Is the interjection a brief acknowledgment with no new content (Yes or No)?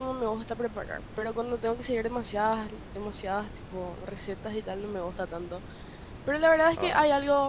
Yes